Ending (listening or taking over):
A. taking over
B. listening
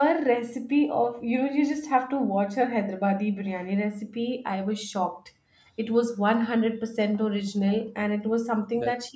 B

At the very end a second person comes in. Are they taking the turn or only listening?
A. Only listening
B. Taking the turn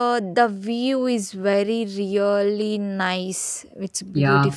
B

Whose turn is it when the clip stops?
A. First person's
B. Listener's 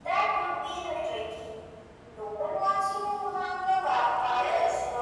B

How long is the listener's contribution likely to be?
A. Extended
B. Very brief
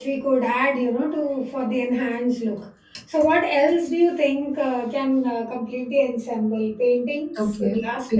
A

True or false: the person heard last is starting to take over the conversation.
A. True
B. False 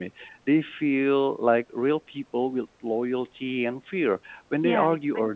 B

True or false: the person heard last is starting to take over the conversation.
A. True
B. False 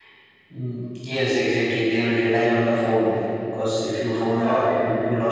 B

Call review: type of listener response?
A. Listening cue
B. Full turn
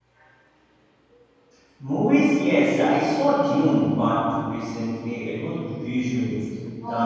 B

